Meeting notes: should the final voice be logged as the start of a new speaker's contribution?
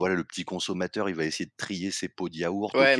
Yes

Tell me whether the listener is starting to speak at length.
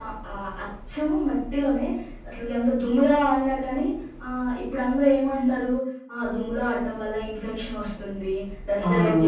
No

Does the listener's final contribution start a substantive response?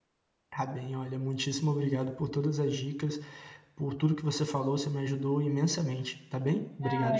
Yes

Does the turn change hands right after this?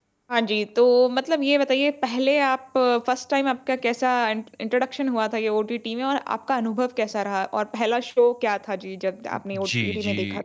Yes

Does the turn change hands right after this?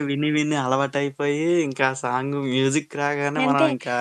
Yes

